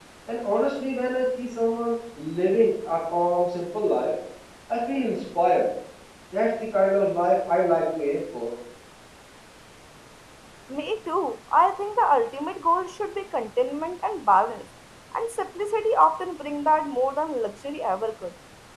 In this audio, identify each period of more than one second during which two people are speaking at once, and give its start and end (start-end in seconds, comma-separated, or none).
none